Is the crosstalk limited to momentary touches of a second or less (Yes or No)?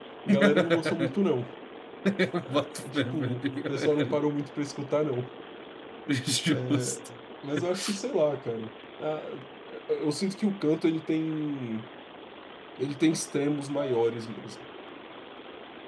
No